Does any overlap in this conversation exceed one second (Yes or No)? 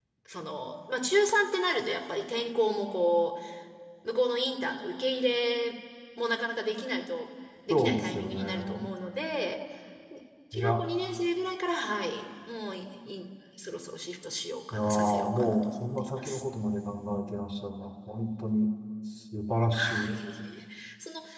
Yes